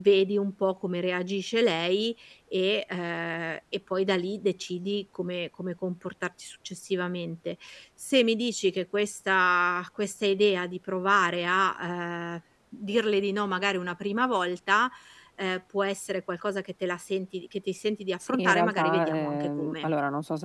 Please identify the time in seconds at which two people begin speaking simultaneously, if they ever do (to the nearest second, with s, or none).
18 s